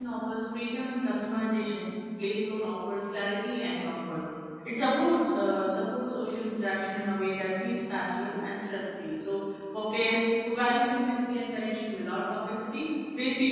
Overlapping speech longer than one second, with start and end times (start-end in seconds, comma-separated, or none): none